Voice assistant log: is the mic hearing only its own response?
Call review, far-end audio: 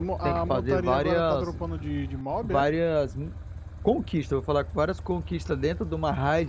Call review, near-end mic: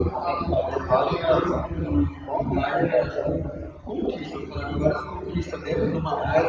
Yes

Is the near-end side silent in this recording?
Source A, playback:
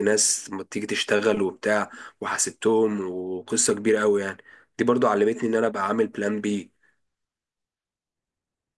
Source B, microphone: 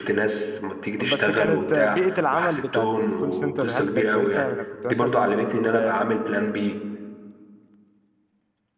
No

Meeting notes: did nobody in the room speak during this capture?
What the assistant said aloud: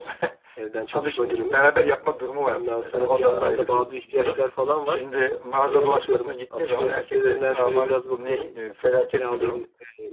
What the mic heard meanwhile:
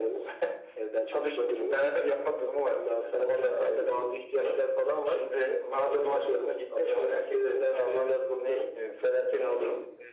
Yes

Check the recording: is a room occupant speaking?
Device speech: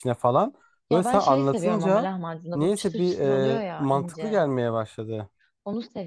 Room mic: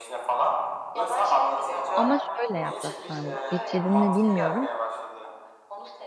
Yes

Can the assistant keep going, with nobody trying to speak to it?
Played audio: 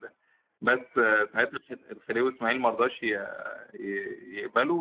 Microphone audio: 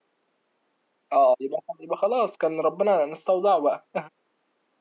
No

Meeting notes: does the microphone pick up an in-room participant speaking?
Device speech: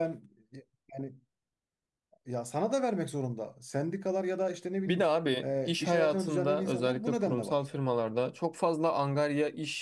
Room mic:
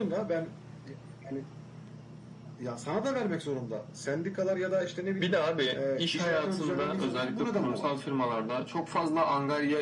No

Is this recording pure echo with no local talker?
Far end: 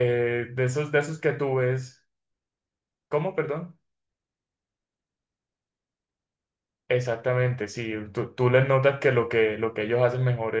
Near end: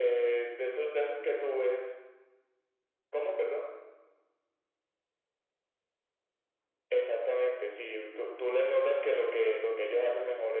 Yes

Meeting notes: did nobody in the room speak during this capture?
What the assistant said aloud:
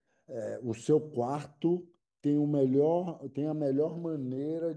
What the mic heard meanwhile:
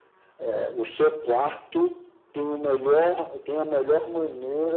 Yes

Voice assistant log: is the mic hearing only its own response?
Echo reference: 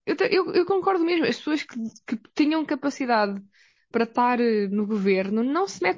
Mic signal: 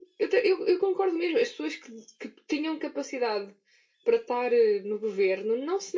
Yes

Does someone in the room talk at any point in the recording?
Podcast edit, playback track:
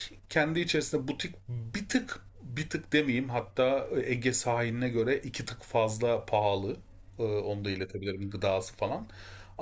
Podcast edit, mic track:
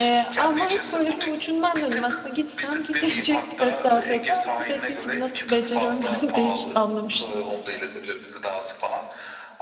Yes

